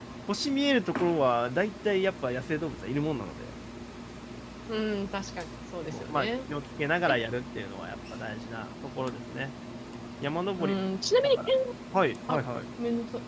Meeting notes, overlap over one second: none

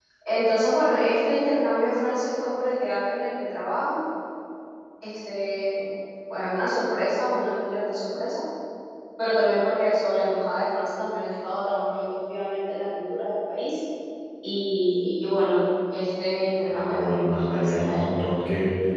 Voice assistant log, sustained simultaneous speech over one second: present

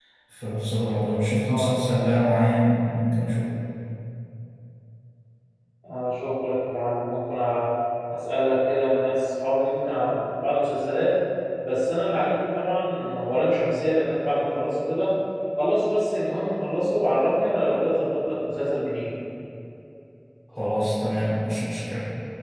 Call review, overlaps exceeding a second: none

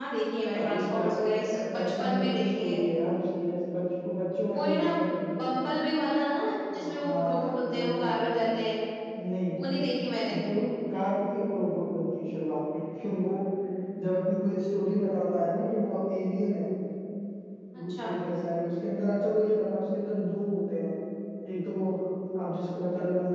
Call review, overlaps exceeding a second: present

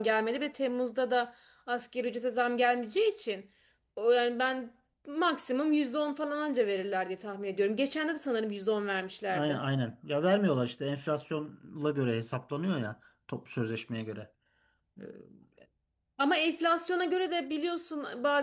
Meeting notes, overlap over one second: none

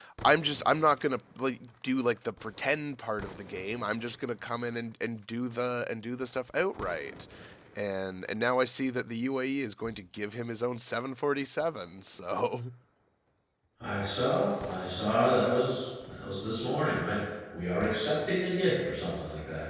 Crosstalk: none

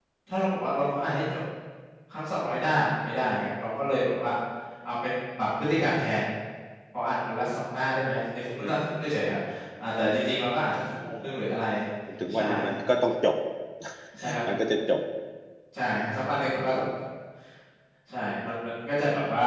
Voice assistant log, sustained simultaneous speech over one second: none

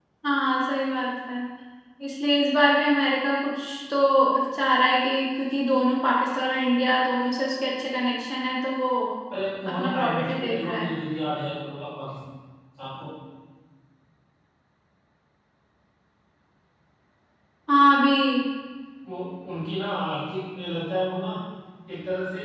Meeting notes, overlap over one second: present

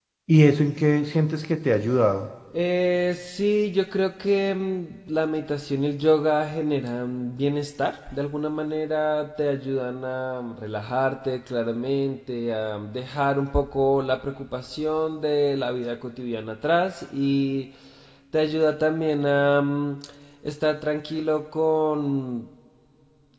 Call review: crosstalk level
none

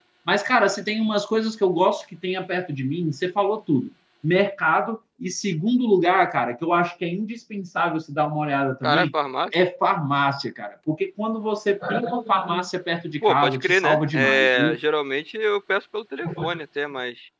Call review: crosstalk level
present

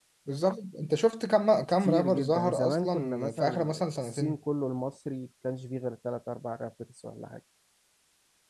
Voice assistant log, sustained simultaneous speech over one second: present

